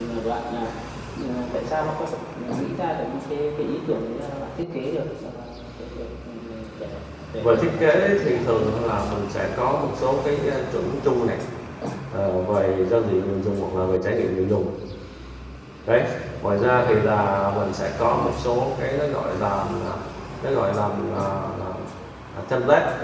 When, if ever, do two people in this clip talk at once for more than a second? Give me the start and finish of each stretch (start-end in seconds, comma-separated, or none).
7.4-8.7